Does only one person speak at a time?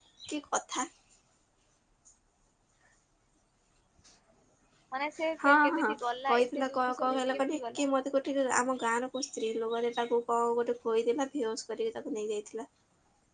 No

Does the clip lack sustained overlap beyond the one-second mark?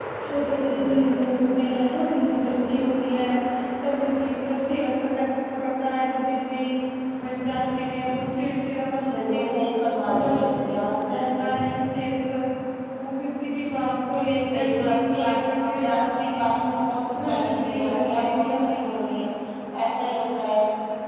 No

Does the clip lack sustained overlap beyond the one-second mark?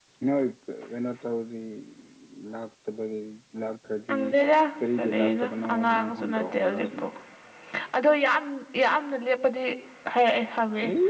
No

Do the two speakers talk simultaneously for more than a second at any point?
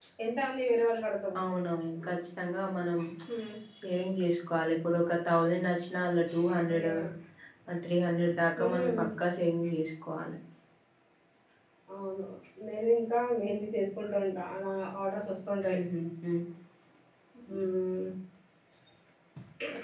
No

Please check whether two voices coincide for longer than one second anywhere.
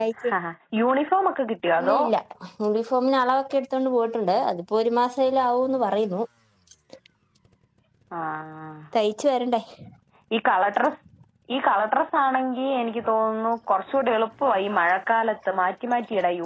No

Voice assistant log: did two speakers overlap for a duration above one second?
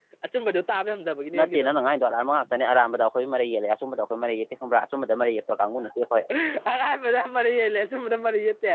No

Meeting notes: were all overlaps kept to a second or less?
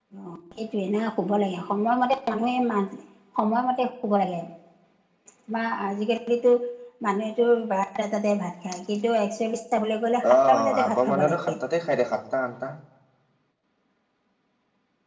No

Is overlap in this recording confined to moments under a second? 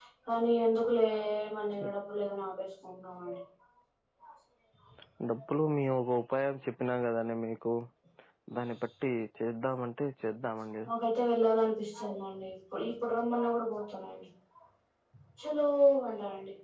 Yes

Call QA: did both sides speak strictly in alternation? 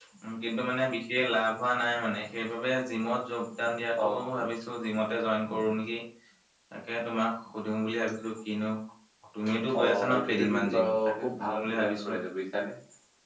No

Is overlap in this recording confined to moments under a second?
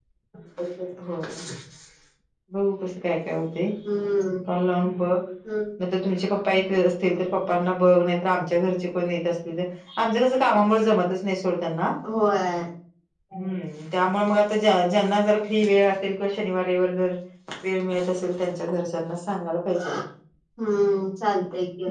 Yes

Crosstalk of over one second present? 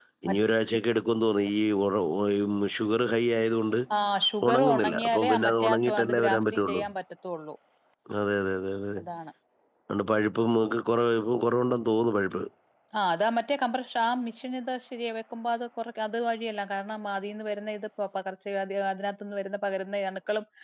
Yes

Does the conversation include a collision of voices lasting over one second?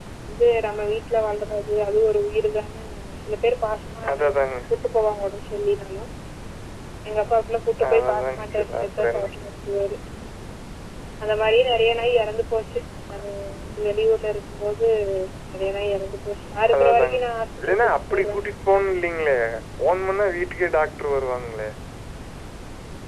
Yes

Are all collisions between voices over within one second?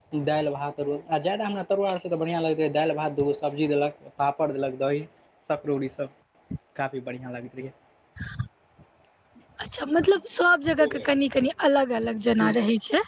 Yes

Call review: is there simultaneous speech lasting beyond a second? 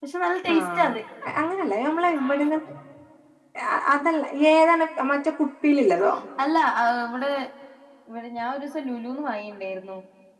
No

